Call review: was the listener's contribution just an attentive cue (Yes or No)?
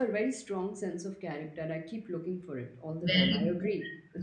No